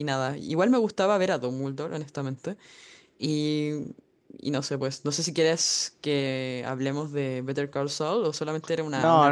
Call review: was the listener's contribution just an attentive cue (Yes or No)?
No